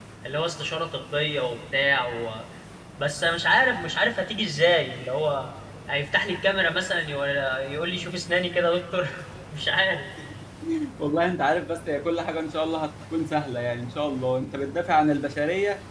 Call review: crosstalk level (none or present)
none